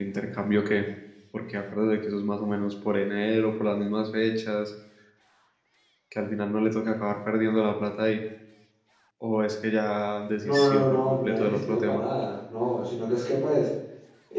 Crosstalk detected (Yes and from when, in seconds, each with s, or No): Yes, from 10.4 s